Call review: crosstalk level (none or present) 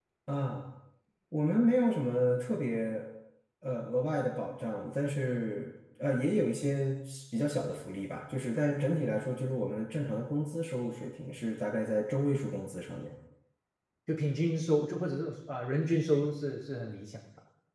none